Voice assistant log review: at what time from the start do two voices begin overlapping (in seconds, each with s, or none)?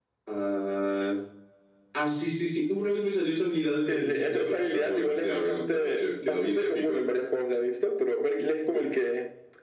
3.9 s